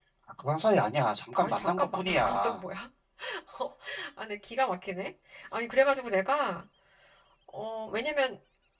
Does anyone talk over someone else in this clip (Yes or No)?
Yes